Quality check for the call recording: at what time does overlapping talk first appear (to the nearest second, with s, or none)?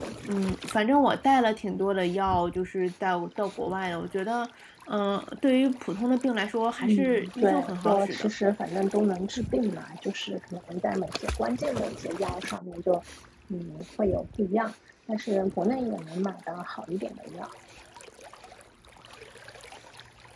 7 s